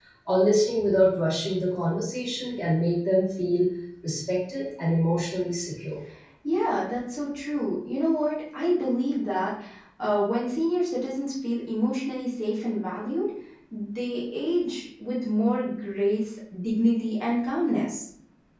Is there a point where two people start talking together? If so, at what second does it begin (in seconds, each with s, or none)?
none